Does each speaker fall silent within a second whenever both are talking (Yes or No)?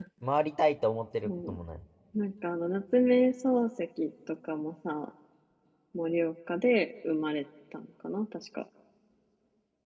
Yes